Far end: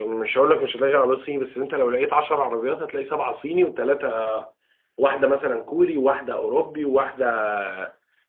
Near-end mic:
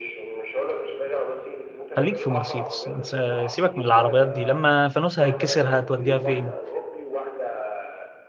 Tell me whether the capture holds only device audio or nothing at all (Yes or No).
No